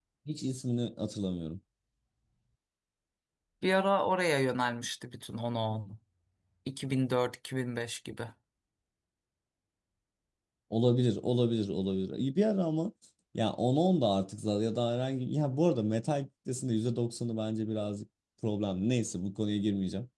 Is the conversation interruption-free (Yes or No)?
Yes